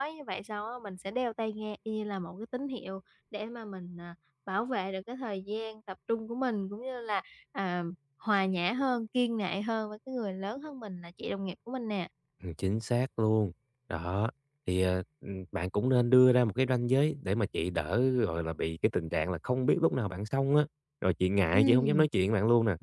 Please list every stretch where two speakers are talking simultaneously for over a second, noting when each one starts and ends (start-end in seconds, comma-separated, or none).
none